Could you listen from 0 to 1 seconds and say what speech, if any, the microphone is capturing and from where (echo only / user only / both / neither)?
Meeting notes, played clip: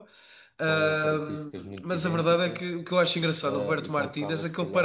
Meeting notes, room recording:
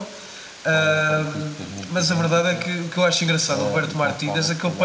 echo only